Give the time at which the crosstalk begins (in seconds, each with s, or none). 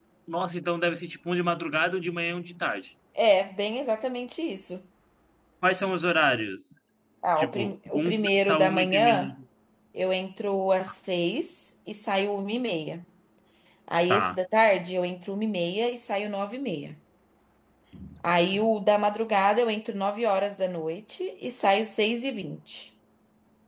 7.4 s